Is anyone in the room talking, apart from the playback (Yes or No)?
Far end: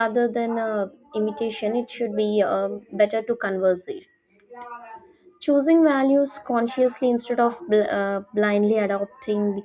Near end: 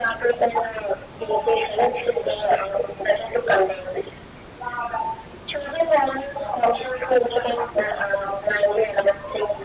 No